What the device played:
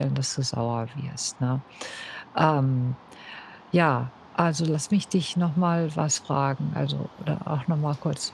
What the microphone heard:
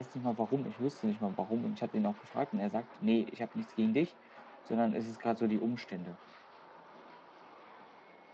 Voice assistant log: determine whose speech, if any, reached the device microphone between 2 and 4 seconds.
user only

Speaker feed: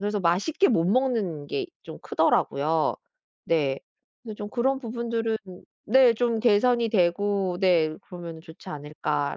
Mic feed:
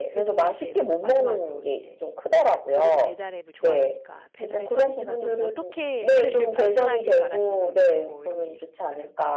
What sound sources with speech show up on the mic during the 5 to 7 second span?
both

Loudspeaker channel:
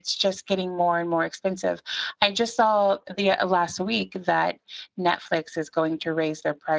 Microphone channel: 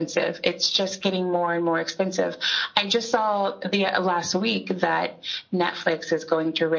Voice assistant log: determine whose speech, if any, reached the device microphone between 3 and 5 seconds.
echo only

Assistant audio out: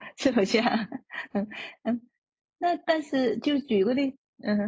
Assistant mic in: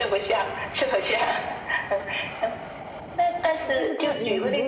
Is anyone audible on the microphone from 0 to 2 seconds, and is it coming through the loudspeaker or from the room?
echo only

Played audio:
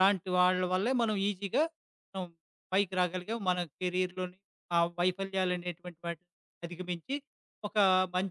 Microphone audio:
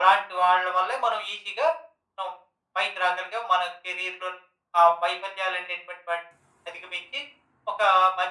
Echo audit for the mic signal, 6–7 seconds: echo only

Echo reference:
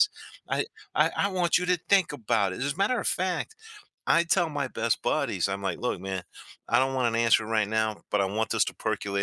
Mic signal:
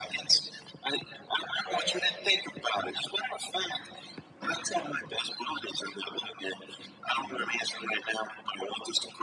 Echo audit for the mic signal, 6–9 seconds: echo only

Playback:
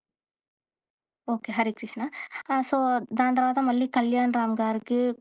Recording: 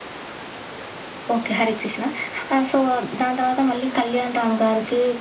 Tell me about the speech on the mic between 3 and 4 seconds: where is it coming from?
echo only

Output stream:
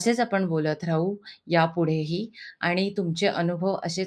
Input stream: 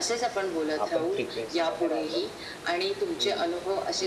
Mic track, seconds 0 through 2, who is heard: both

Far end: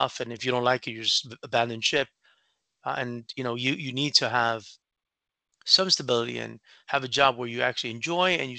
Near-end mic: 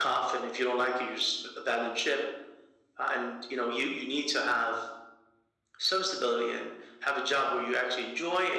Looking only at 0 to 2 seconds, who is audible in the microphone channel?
echo only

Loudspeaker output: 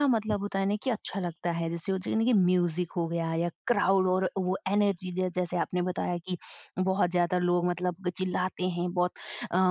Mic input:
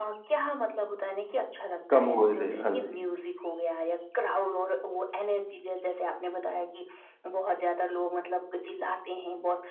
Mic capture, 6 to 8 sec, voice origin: echo only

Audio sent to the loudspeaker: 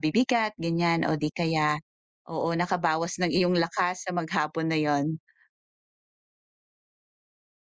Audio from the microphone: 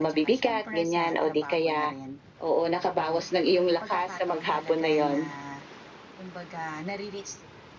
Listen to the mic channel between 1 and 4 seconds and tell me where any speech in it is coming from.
both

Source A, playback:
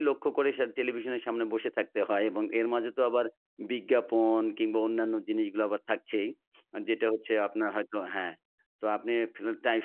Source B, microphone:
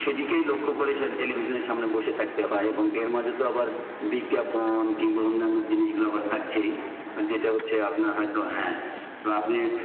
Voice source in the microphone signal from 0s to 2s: echo only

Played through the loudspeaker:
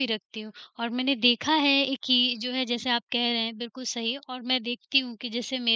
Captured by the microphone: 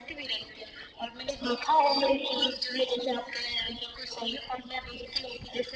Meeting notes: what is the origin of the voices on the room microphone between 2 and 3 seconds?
echo only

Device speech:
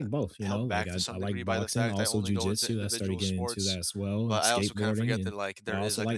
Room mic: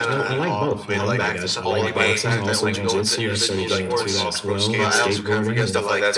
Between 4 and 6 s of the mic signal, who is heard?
both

